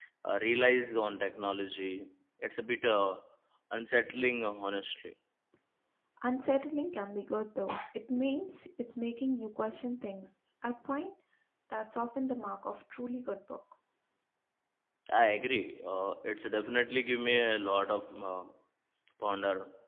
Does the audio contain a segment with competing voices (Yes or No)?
No